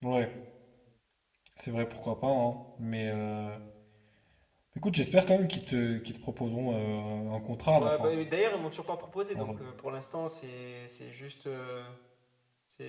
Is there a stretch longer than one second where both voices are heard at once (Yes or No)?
No